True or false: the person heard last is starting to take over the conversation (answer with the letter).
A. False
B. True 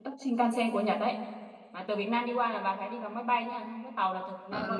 B